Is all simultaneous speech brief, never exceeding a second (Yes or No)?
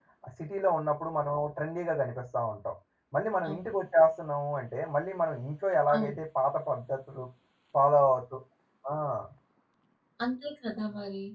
Yes